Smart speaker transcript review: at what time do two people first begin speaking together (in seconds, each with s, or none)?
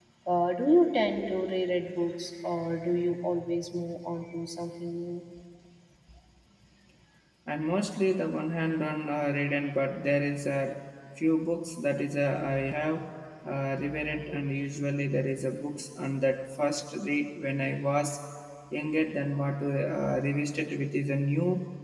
none